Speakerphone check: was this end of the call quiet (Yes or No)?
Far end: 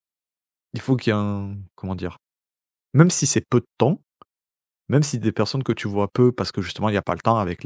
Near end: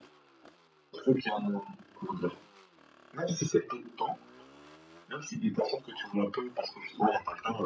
Yes